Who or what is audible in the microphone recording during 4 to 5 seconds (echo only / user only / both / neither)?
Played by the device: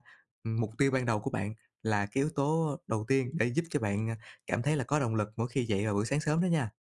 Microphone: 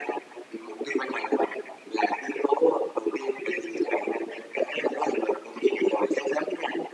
echo only